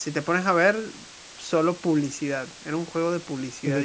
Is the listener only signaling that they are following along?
No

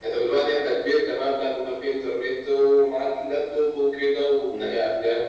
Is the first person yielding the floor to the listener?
No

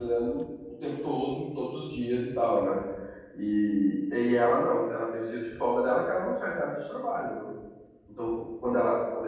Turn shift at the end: No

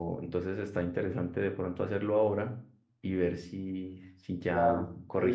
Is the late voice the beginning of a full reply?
Yes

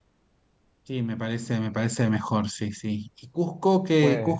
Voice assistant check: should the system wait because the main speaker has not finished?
Yes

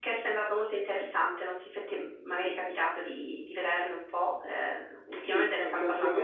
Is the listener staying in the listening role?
No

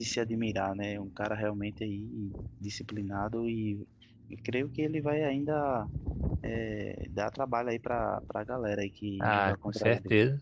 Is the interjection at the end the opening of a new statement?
Yes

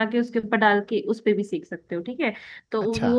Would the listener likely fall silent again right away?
Yes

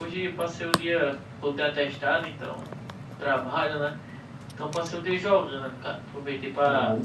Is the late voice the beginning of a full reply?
No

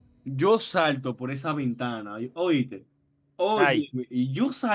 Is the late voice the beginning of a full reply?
No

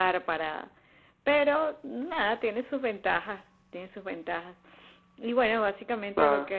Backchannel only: Yes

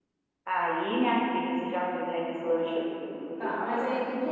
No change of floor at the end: No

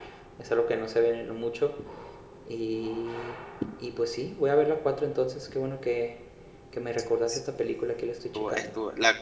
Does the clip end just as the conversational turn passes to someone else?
Yes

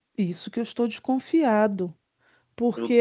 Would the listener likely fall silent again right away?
No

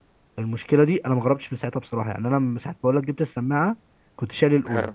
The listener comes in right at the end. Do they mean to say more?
No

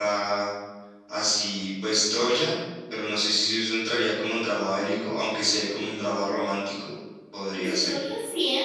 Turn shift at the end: Yes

